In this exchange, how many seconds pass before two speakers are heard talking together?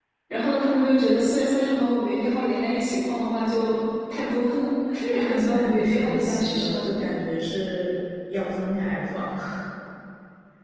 5.1 s

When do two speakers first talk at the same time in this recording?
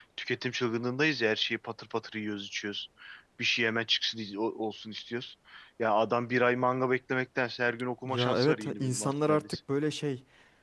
8.0 s

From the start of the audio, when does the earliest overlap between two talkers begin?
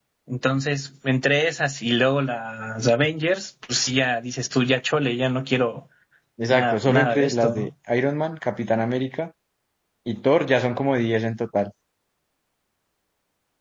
6.5 s

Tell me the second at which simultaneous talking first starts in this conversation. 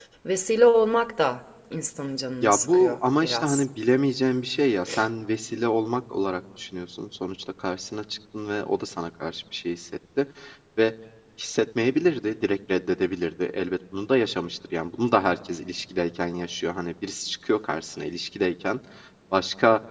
2.4 s

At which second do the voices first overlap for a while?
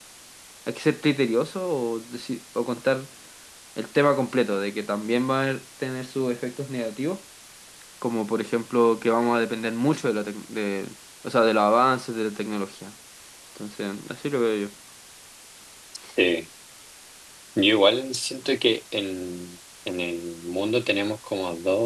none

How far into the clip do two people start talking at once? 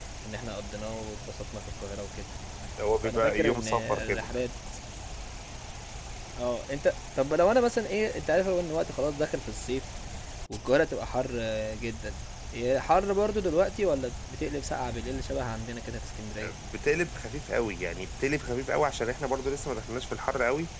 3.0 s

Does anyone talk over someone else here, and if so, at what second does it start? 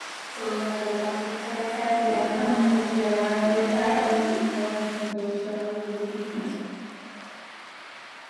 2.1 s

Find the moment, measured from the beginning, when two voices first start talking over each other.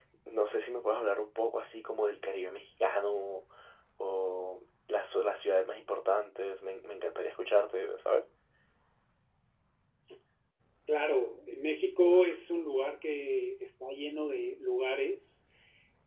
none

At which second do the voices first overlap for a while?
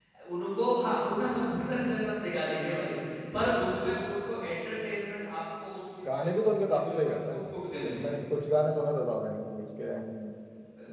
6.0 s

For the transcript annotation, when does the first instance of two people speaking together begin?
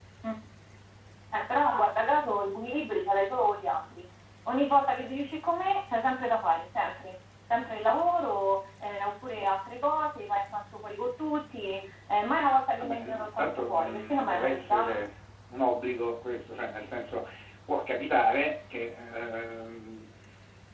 12.8 s

